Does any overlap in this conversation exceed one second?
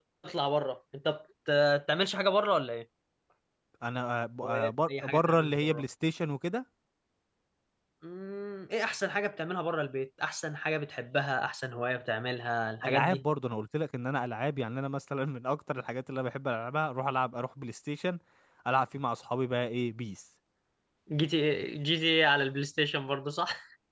Yes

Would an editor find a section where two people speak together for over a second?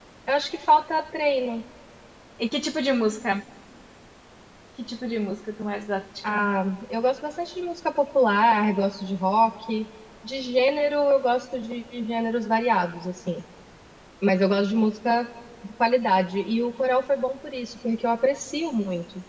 No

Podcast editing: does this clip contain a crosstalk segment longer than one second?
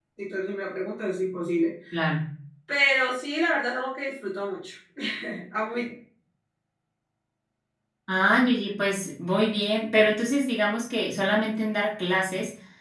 No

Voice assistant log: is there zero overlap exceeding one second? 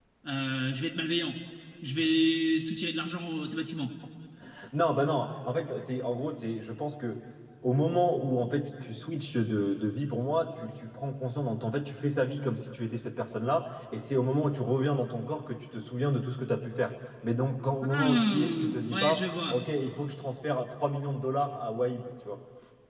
No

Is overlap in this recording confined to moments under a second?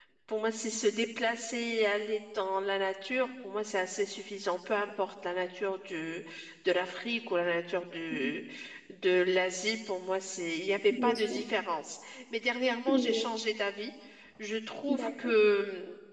Yes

